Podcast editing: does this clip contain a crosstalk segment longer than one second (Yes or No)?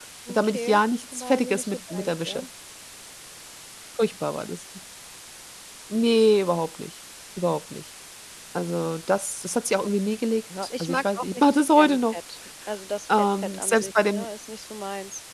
Yes